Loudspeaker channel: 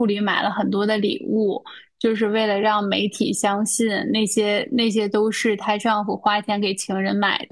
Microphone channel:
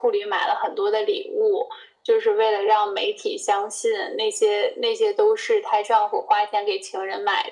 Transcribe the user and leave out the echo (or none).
none